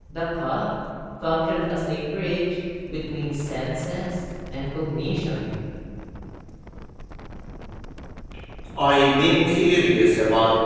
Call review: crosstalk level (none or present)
none